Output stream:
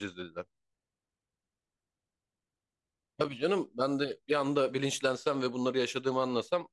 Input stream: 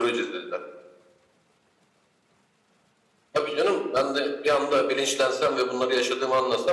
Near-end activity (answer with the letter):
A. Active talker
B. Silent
B